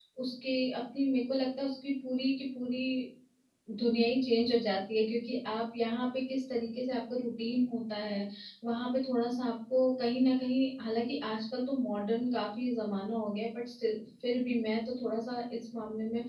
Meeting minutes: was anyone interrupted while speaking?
No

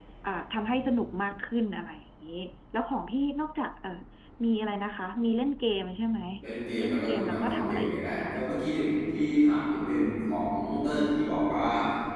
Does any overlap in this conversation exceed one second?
Yes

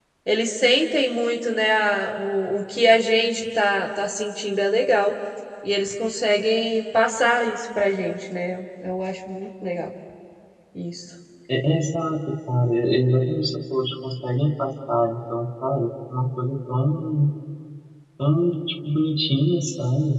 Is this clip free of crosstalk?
Yes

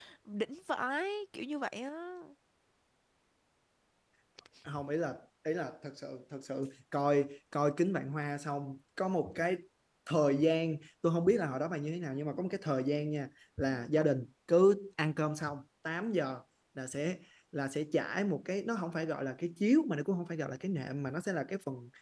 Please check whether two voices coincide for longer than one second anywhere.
No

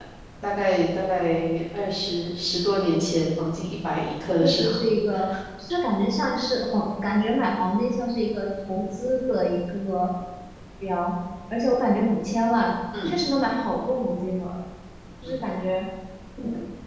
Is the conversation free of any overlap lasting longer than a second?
Yes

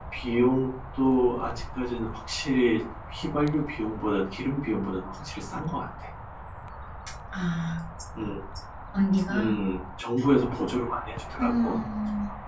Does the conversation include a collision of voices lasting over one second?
No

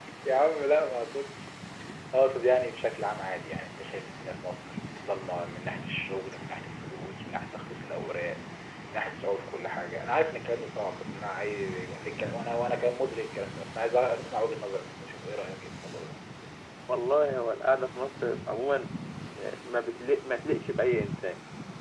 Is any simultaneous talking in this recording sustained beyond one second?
No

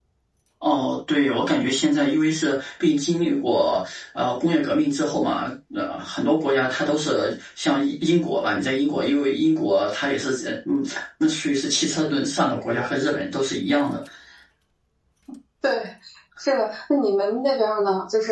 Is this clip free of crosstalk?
Yes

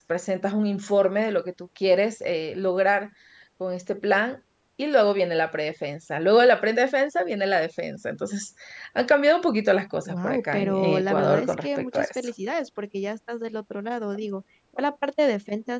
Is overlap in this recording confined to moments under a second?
No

